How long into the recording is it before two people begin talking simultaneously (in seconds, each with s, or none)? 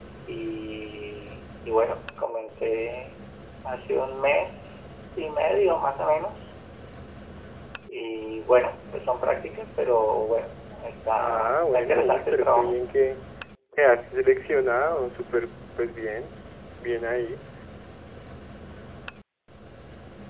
11.2 s